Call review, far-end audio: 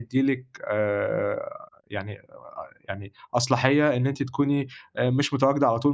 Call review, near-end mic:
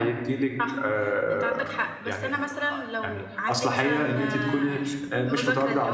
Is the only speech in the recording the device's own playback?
No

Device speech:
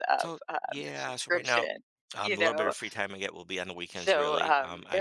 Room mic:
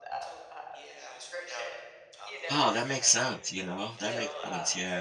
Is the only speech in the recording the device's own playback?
No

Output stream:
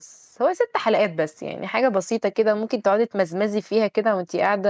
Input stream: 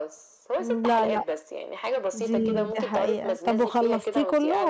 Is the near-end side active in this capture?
Yes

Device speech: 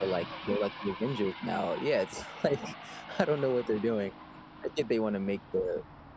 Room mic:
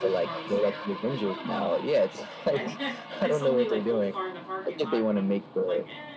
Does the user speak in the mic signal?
Yes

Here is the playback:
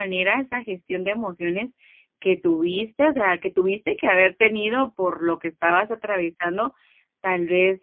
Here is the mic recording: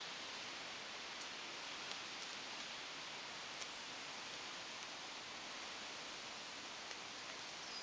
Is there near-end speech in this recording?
No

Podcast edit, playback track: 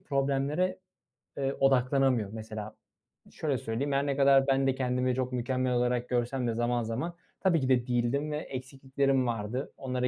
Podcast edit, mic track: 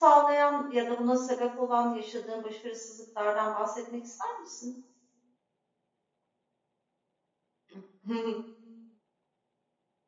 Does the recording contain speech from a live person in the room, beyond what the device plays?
Yes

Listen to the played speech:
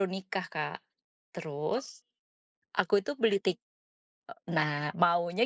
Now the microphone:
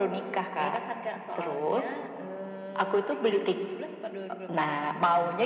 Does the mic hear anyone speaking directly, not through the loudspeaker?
Yes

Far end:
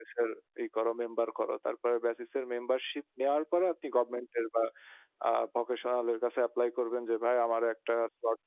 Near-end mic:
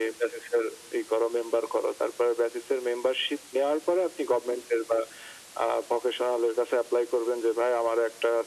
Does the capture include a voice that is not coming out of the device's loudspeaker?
No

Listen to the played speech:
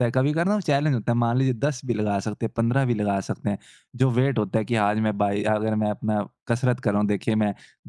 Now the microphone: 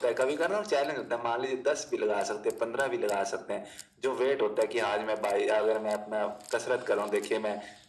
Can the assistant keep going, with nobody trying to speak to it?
Yes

